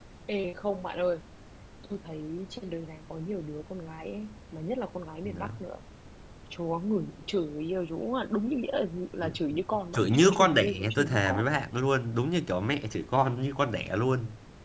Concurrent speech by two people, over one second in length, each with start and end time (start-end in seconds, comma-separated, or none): 9.9-11.6